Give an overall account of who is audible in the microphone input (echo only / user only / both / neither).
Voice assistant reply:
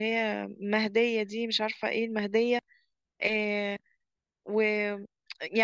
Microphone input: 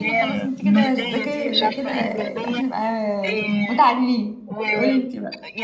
both